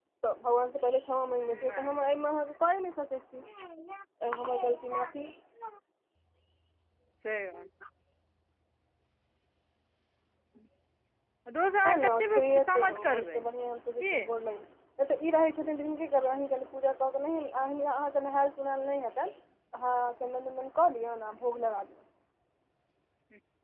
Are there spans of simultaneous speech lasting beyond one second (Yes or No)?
Yes